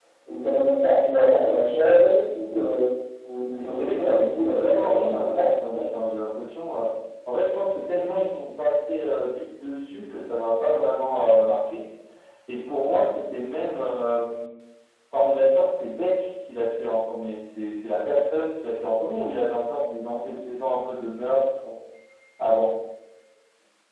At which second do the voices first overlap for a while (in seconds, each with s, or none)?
3.6 s